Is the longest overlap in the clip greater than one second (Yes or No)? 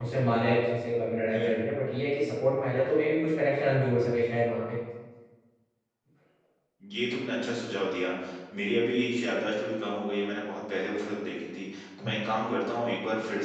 No